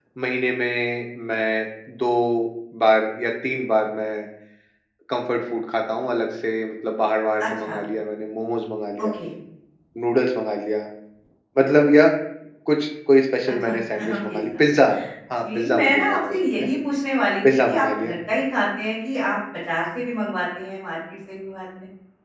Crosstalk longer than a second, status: present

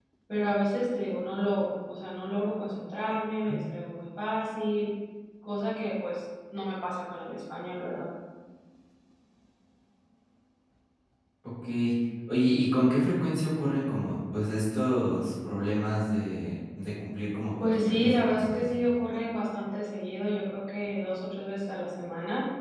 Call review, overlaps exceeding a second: present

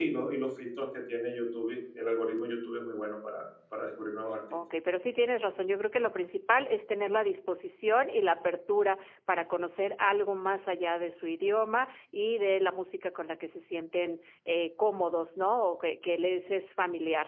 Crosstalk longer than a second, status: none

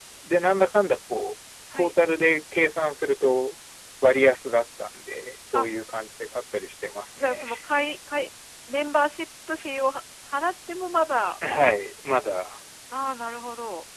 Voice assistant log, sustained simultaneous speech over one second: none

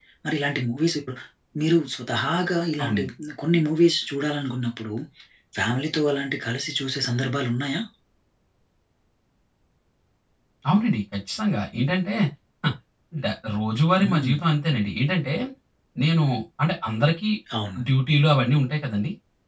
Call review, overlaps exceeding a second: none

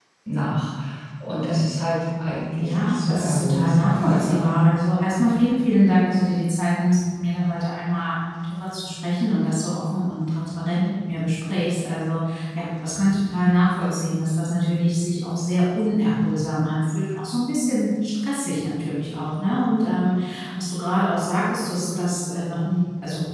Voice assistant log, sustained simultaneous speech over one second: present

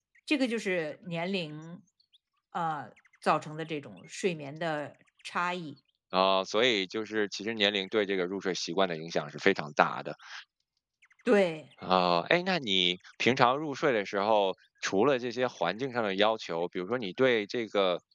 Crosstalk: none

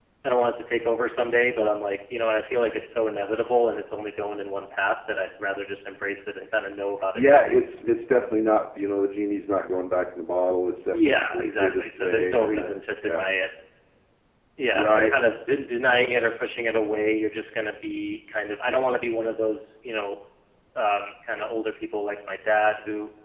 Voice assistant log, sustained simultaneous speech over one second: present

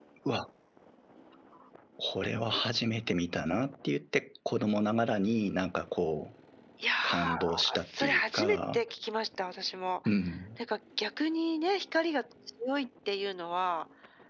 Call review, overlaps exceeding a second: present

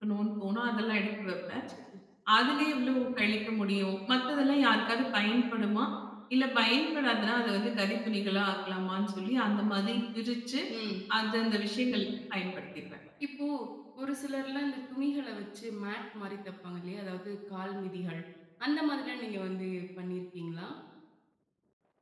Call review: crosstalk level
none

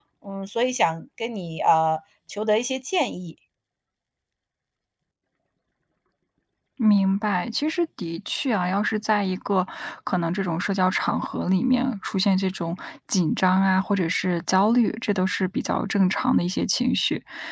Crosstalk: none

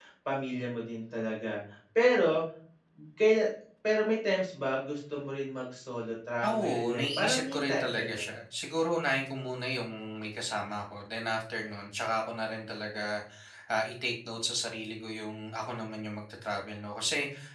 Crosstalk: present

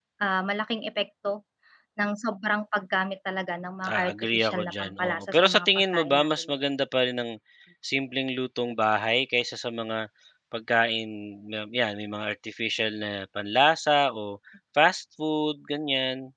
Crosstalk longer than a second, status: present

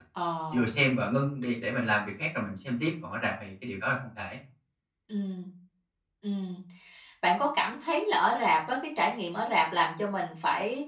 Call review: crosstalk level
none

